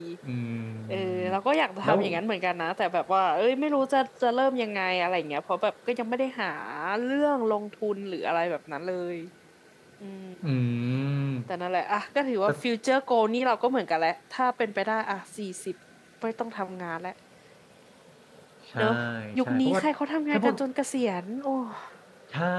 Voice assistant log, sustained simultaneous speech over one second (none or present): none